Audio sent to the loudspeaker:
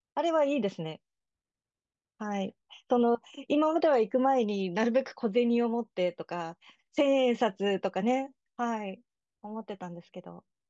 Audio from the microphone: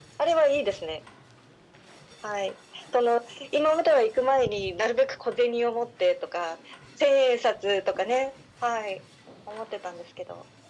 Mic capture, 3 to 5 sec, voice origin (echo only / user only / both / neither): echo only